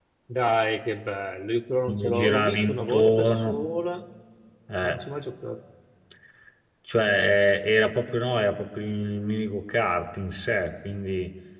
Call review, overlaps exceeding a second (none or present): present